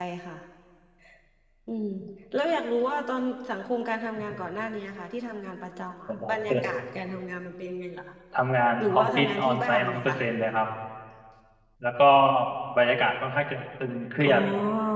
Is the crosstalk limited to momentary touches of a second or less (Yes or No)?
No